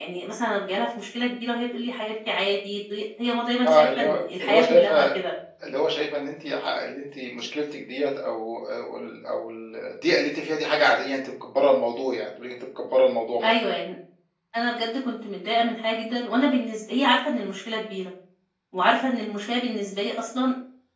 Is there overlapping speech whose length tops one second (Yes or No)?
Yes